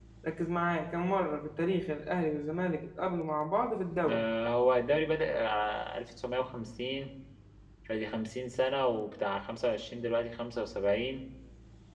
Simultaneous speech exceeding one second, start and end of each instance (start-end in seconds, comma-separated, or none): none